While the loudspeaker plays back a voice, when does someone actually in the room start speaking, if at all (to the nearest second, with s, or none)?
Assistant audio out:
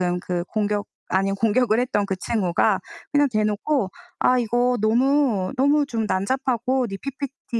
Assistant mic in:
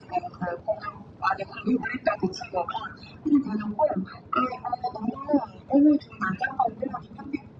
none